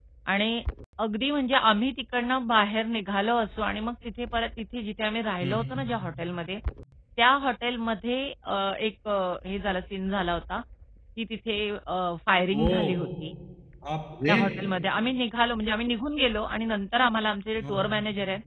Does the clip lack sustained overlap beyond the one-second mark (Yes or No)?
Yes